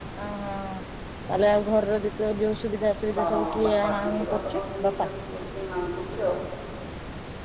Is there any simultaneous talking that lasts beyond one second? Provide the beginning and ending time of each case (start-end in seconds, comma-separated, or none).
3.2-5.1